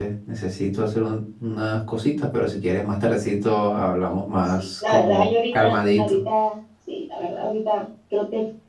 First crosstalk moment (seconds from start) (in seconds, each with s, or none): 4.5 s